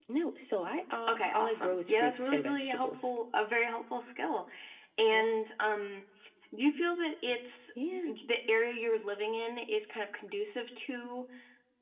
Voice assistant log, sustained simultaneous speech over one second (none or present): present